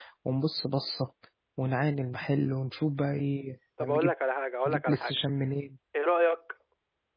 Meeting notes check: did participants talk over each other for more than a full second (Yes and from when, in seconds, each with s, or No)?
No